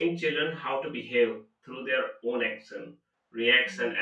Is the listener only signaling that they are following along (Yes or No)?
Yes